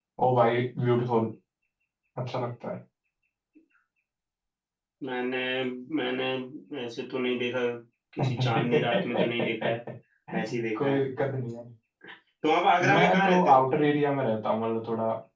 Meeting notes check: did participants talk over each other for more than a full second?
Yes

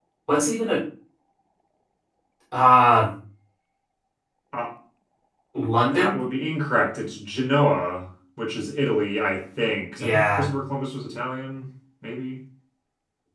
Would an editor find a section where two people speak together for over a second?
No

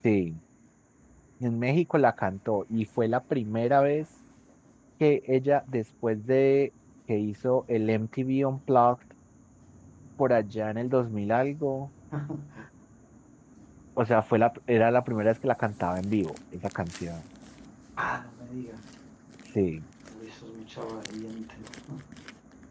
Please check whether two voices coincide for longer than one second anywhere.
No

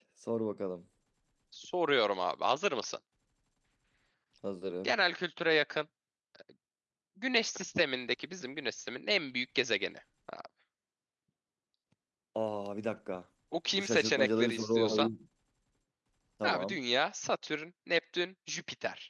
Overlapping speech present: Yes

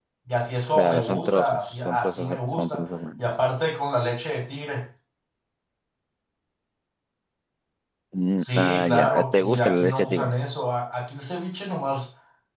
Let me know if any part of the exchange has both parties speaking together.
Yes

